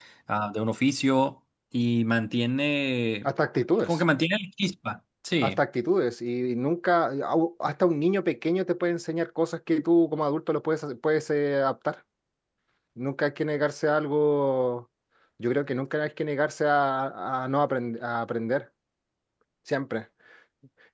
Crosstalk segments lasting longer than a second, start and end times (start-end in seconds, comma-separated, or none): none